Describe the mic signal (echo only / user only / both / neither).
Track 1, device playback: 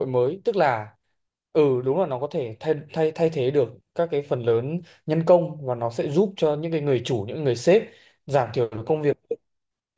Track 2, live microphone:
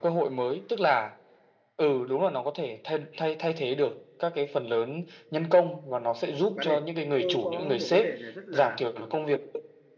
both